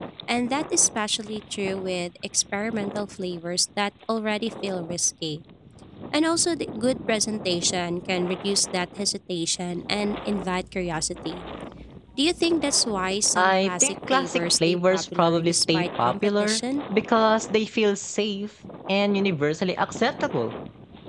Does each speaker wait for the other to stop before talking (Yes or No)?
No